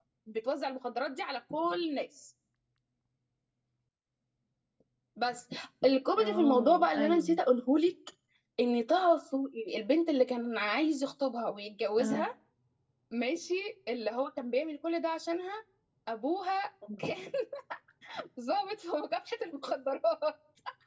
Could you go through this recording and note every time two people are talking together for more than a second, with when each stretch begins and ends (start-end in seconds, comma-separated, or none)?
6.2-7.4